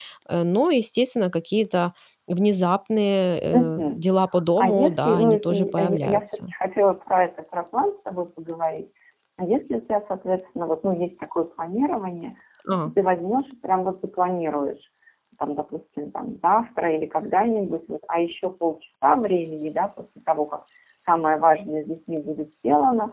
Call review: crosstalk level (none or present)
present